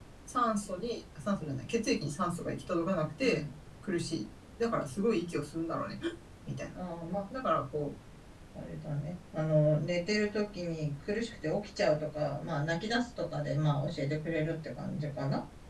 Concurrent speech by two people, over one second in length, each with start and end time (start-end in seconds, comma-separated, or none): none